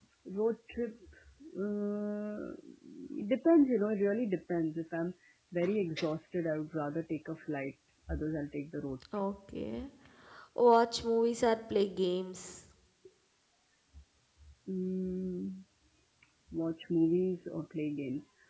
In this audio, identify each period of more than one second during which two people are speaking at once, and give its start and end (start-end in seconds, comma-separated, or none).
none